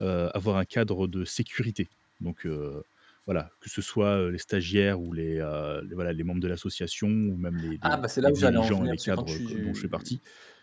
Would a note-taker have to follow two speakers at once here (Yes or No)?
Yes